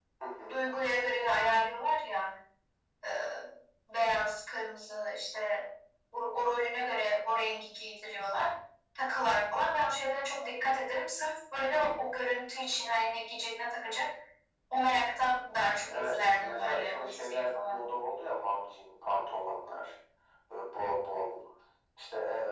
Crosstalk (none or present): present